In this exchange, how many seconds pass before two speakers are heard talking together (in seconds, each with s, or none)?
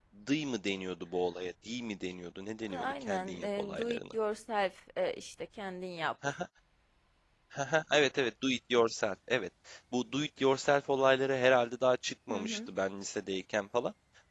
2.7 s